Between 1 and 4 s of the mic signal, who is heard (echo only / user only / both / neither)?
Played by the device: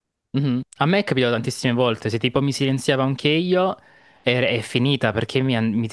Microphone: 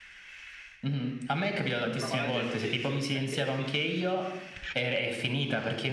both